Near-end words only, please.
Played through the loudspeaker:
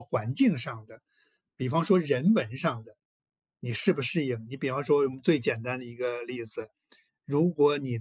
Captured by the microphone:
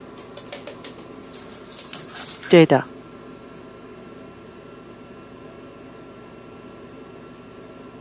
对的，

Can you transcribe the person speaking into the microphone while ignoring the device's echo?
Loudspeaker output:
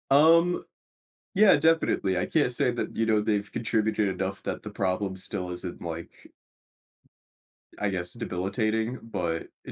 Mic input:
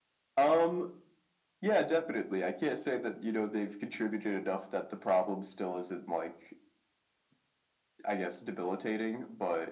none

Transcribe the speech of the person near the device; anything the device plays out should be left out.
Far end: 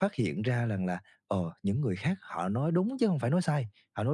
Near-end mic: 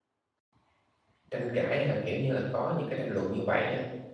Tranh cãi hay là, kiểu như là, có những cái tranh luận như vậy á,

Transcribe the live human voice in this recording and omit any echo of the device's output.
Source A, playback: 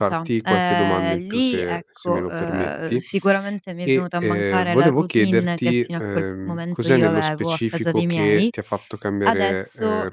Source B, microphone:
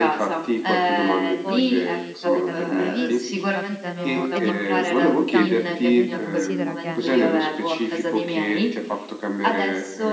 poi capitano imprevisti, capitano ed imprevisti ne ho tanti perché comunque considera che

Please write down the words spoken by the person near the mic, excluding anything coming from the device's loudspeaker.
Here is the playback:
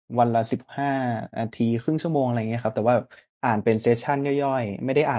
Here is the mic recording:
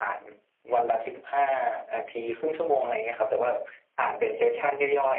none

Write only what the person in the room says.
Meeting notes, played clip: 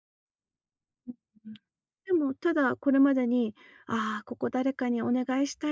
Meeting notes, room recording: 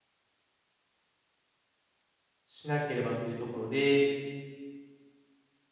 しなければというところで、

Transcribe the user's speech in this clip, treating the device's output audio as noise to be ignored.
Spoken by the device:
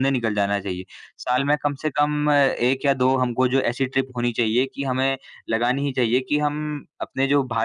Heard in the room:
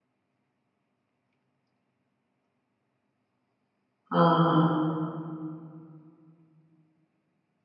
हाँ, हाँ।

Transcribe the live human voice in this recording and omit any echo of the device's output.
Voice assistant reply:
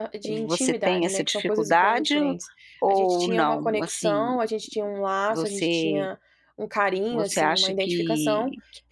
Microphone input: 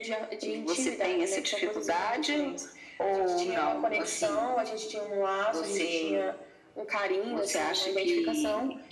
none

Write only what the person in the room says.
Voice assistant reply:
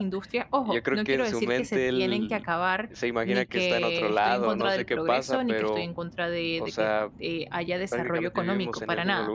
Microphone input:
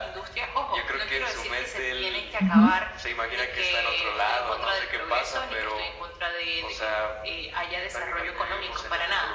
Ujú.

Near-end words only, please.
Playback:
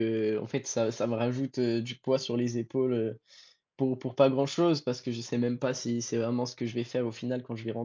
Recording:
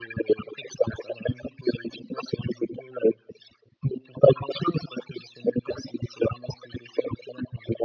none

